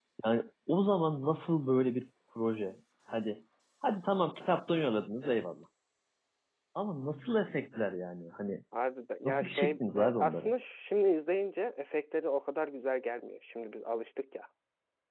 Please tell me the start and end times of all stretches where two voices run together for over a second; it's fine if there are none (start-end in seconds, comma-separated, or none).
9.2-10.5